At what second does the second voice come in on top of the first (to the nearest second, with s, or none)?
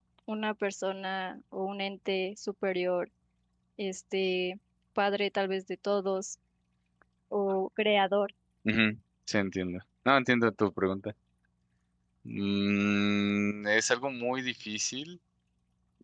none